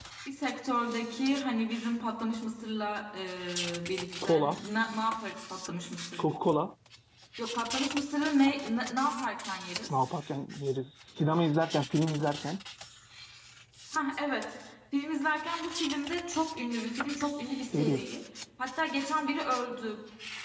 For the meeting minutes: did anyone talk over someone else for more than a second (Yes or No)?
No